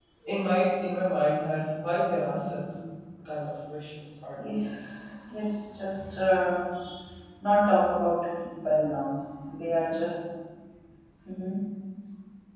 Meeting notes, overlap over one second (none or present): none